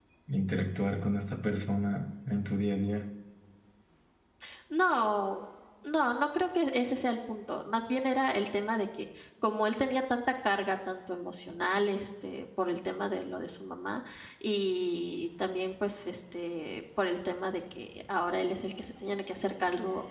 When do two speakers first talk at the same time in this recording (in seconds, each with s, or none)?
none